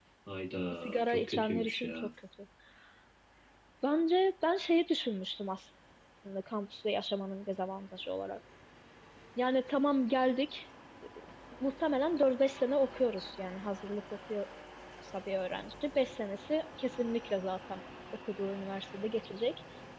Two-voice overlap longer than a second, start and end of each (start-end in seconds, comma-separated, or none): 0.8-2.1